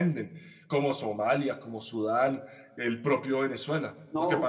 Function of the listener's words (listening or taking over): taking over